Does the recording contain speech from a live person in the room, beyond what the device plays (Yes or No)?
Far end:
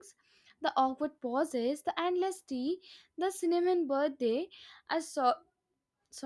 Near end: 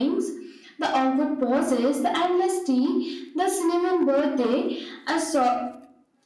No